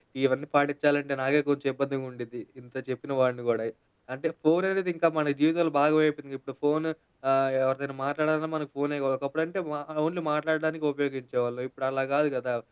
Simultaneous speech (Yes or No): No